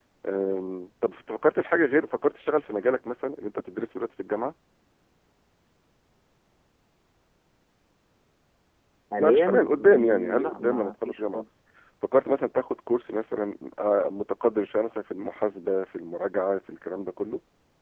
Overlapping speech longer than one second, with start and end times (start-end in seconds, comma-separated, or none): 9.2-11.4